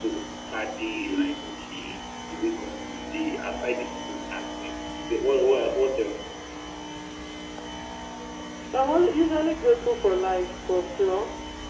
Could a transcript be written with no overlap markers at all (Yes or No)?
Yes